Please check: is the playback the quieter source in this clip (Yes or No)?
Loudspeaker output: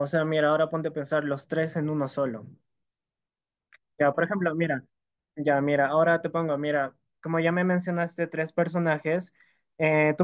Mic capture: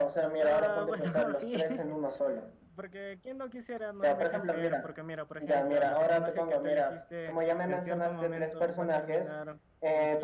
No